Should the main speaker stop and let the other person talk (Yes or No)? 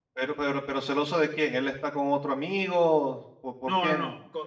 Yes